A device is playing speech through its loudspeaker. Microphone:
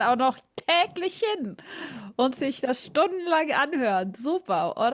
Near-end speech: present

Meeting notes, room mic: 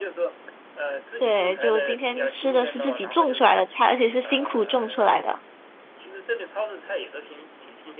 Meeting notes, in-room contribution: present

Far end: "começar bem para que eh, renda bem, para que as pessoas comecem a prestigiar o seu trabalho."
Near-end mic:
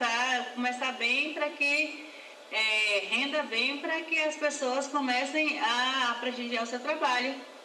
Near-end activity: none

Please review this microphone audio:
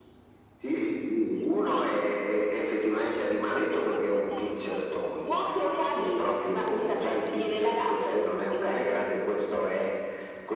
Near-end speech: present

